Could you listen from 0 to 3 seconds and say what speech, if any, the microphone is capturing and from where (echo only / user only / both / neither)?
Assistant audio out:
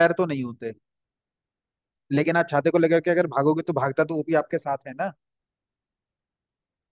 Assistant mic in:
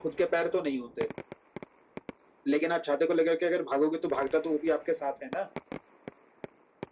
echo only